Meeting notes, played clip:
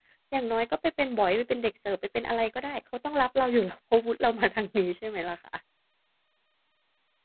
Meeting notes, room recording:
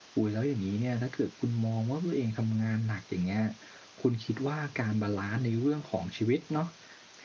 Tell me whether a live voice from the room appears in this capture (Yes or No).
Yes